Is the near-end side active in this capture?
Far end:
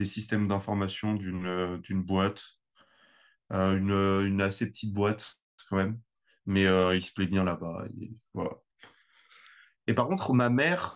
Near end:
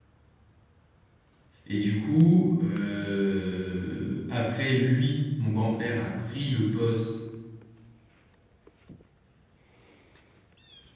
Yes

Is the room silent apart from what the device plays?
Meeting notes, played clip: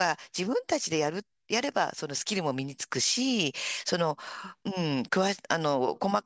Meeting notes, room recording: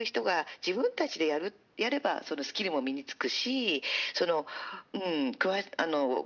Yes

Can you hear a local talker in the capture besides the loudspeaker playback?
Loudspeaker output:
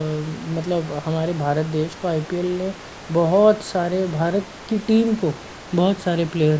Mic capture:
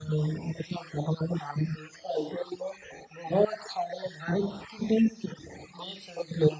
No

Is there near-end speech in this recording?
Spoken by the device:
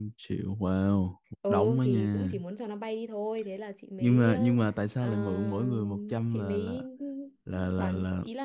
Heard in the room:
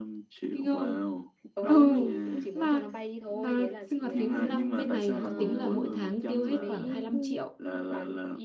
Yes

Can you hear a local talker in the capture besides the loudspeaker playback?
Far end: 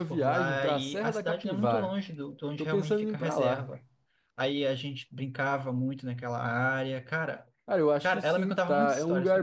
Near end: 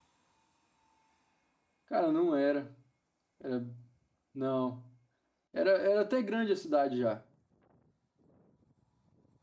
Yes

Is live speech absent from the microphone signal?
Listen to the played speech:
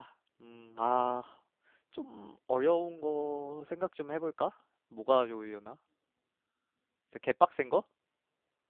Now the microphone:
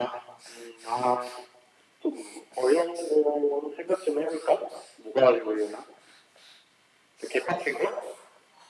Yes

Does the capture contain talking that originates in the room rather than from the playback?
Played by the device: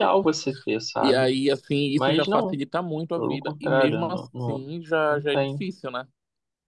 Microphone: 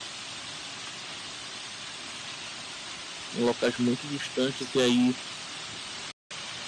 Yes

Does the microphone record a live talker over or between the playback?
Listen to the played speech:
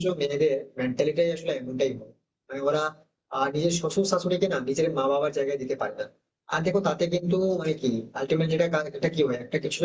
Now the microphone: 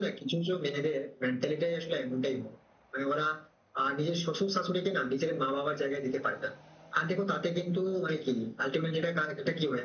No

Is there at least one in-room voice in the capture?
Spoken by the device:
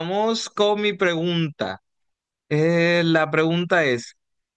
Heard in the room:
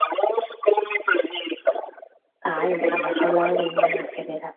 Yes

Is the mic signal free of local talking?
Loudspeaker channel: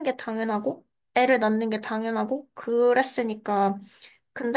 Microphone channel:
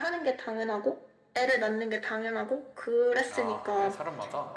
No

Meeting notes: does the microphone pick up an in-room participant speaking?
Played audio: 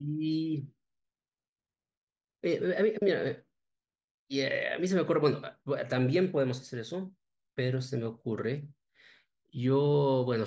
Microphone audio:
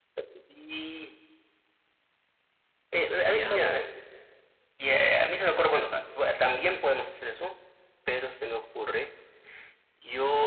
Yes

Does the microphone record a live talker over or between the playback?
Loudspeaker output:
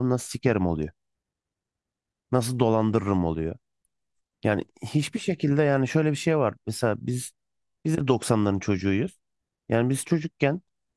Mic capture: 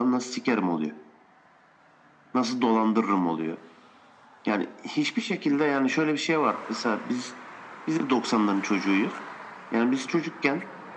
No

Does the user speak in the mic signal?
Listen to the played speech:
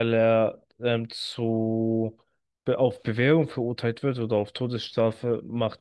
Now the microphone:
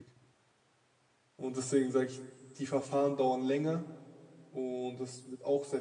Yes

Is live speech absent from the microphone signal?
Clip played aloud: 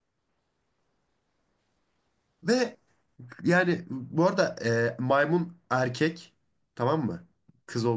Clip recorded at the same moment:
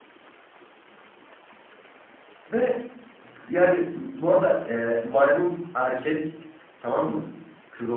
Yes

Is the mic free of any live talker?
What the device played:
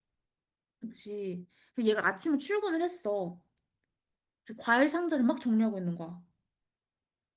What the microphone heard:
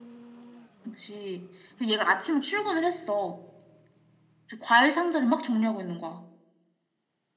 Yes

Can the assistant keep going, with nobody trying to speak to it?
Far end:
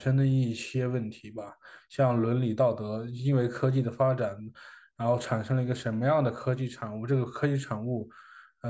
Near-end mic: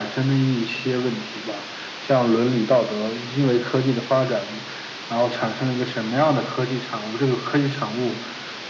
Yes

